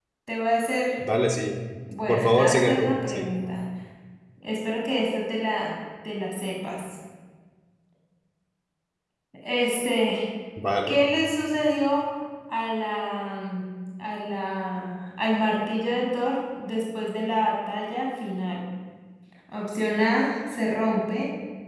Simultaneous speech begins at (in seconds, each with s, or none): 2.1 s